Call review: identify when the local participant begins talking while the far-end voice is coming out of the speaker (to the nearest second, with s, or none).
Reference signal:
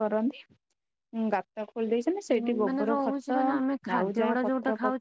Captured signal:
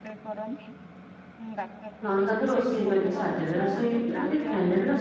2 s